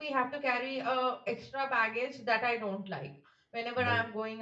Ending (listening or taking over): listening